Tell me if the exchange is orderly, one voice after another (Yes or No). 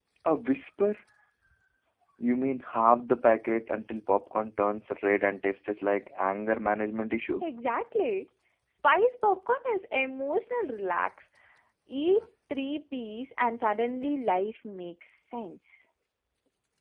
Yes